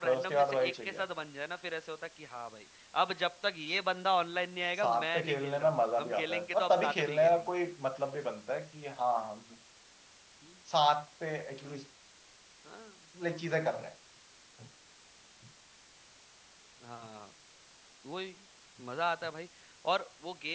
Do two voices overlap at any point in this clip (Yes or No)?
Yes